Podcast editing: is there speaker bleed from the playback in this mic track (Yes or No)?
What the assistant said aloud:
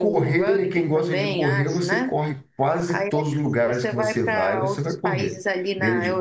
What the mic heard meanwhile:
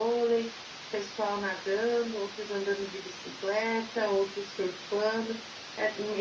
No